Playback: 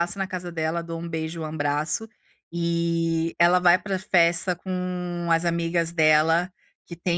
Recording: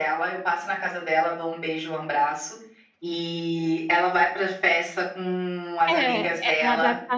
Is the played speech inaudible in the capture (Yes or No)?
No